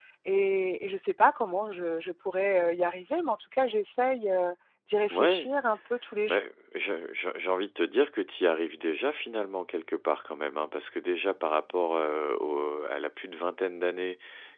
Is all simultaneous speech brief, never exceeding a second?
Yes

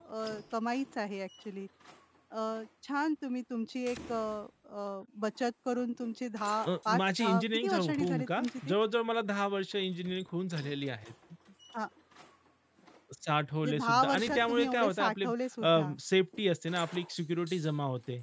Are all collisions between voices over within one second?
No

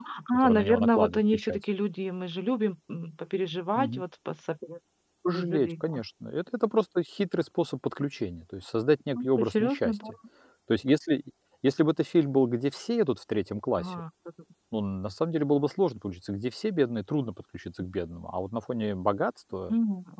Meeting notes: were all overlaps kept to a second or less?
No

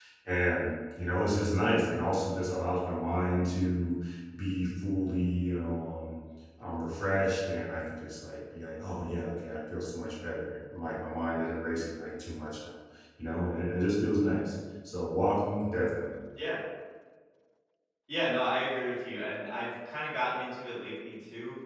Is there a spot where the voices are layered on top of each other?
No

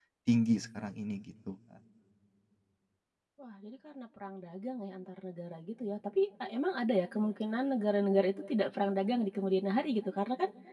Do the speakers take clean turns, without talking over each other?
Yes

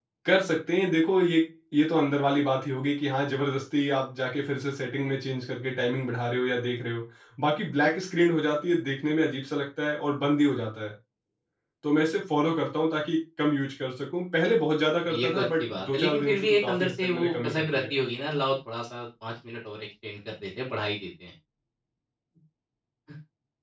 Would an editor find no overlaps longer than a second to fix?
No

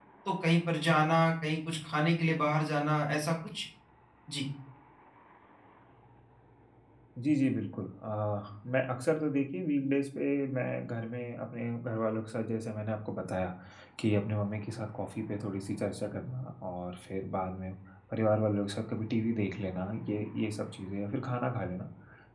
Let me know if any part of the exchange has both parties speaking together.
No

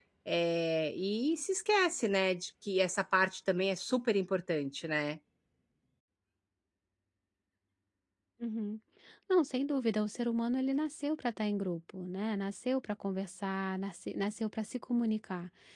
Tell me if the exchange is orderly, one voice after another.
Yes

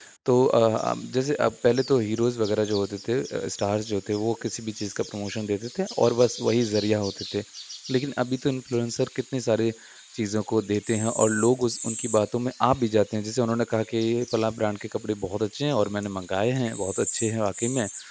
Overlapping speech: No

